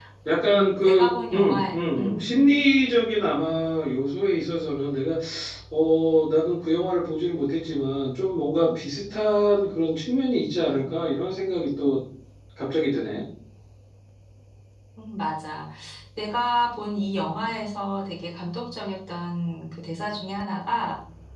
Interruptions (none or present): present